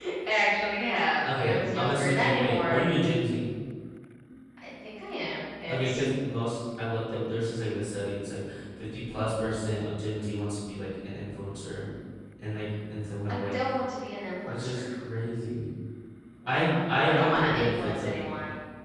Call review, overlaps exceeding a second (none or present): present